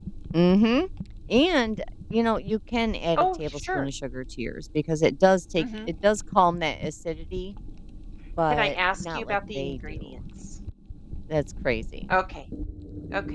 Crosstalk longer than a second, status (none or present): present